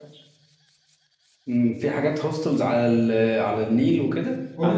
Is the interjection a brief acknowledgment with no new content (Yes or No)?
No